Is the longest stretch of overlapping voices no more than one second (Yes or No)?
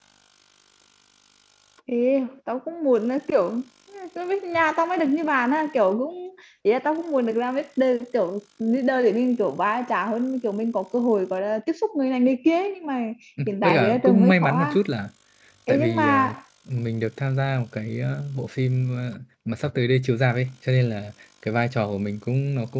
No